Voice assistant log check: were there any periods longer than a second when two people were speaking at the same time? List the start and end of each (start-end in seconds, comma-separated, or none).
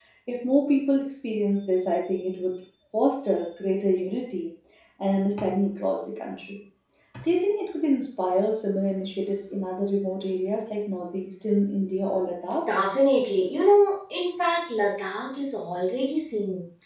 none